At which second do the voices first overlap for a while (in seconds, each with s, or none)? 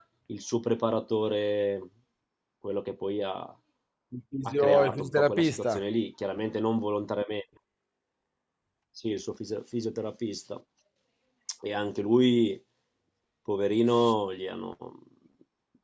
4.5 s